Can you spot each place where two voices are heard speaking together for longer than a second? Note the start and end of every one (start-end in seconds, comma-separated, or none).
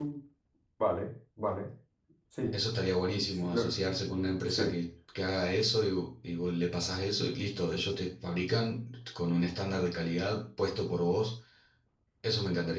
none